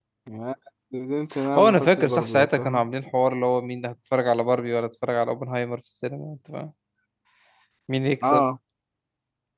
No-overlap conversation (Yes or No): No